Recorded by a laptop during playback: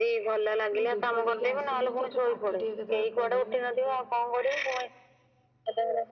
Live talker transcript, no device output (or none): ମୁଁ ଧୂପ ଦେଇକି ଆସିମି ତୋତେ ପାଠ ଟିକେ କେତେବେଳେ ପଢେଇମି